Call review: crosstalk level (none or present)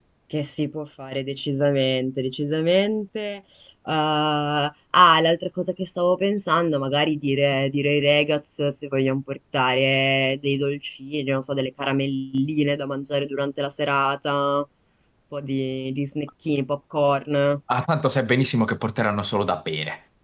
none